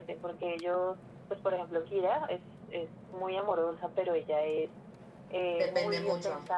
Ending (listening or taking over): listening